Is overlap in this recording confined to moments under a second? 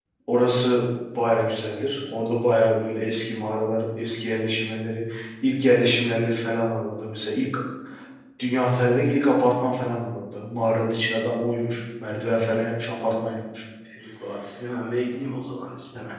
Yes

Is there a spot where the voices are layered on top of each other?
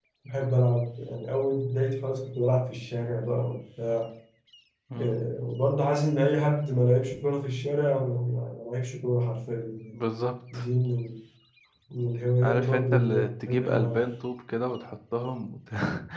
Yes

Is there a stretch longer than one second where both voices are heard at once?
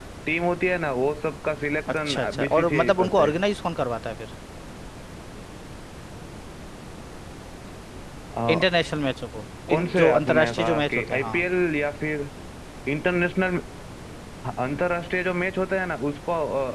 Yes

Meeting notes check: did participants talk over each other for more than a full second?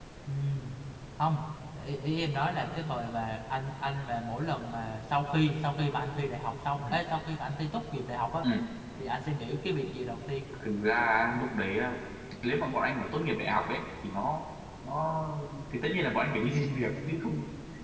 No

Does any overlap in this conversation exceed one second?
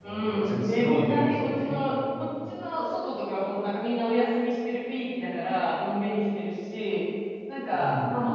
Yes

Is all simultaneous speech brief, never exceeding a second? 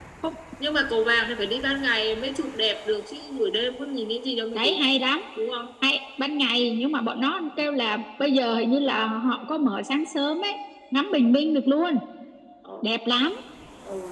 Yes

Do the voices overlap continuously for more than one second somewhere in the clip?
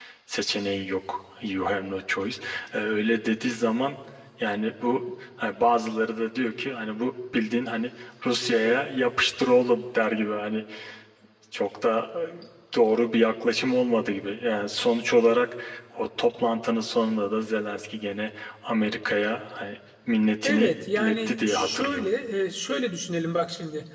Yes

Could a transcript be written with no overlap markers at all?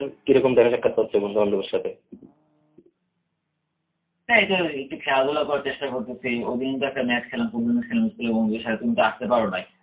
Yes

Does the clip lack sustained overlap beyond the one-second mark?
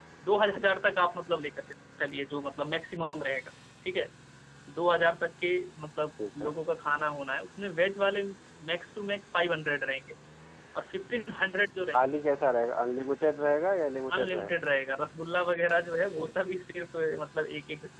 Yes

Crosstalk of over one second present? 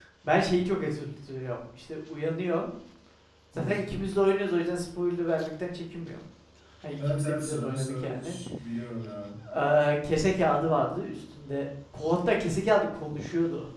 Yes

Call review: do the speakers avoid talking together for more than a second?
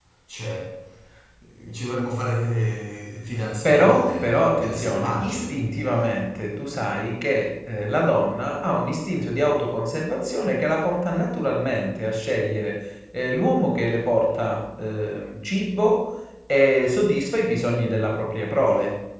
No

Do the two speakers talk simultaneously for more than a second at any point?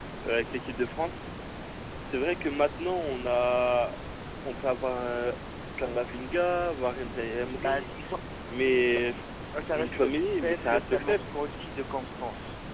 Yes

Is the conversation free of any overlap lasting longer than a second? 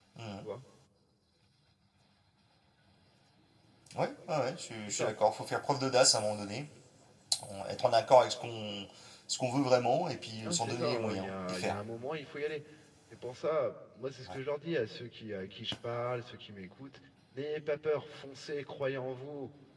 No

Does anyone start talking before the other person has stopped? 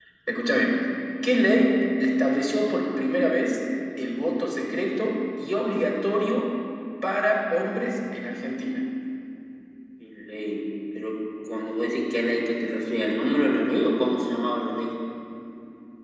No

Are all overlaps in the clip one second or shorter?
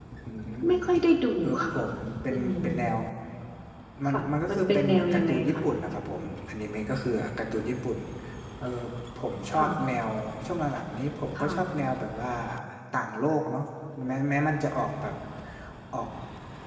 No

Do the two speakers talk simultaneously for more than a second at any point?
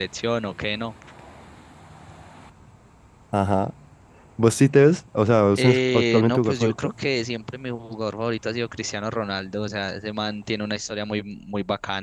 Yes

